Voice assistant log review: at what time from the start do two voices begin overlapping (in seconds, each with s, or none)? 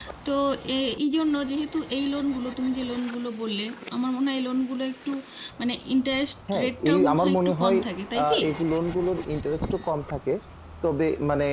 6.5 s